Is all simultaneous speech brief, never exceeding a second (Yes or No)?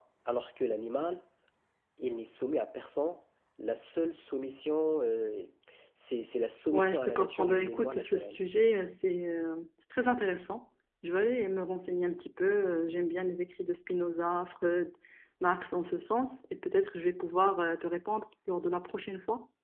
No